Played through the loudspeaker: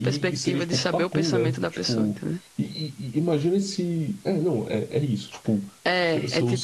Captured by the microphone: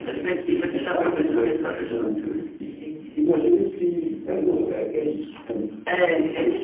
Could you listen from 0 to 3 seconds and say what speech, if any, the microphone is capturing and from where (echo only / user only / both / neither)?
echo only